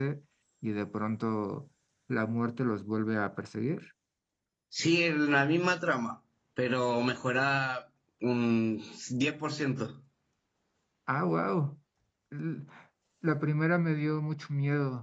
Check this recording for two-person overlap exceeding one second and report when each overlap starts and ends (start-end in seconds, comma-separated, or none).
none